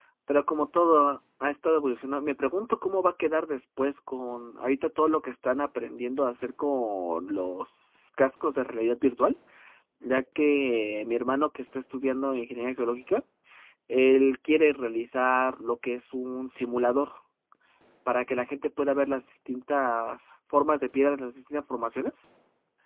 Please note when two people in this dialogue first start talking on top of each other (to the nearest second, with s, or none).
none